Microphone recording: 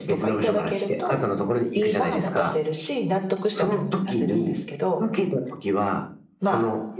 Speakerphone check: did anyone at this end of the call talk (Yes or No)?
Yes